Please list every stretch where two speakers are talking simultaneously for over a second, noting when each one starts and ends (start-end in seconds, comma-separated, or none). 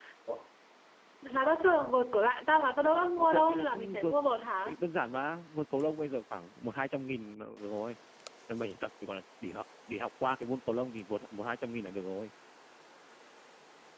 2.8-4.2